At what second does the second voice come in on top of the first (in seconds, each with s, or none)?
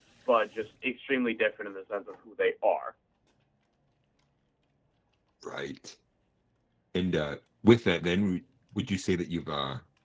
none